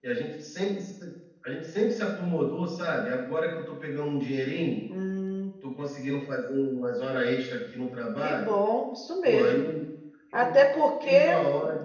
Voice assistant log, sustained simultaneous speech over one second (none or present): none